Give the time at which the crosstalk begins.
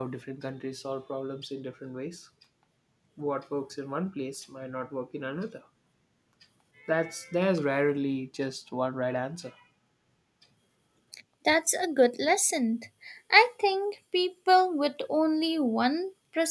none

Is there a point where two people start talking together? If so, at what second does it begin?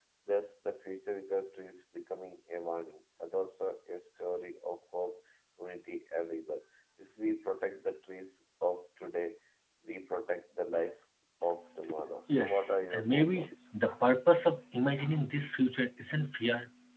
12 s

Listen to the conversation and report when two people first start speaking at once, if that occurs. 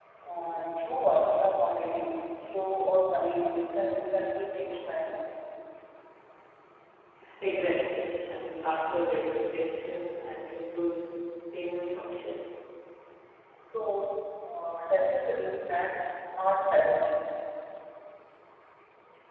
none

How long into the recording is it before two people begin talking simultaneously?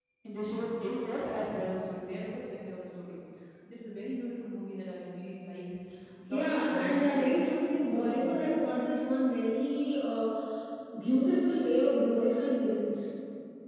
6 s

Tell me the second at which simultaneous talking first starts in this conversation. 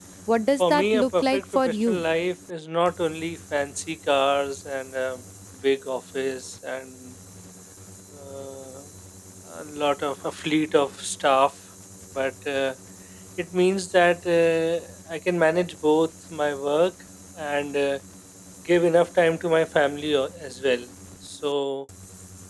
1 s

